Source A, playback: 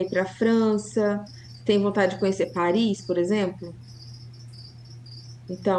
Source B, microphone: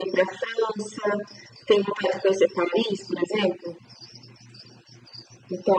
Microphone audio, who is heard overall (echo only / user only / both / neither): echo only